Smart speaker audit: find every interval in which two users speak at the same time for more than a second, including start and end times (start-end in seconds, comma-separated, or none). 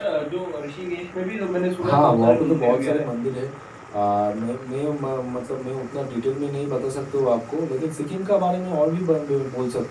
1.8-3.1